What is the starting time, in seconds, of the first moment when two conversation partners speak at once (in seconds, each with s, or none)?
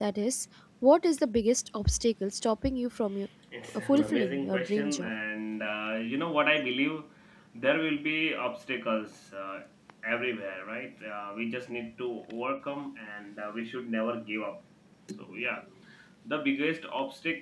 3.7 s